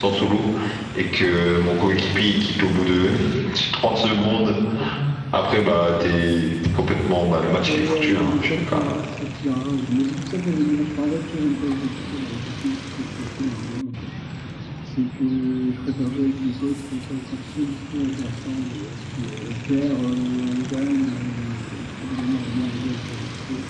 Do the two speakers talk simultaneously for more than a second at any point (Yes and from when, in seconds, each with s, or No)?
Yes, from 7.6 s